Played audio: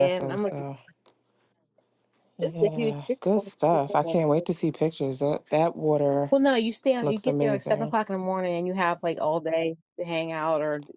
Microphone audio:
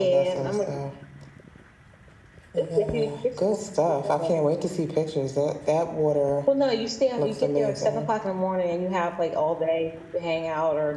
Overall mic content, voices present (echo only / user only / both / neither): echo only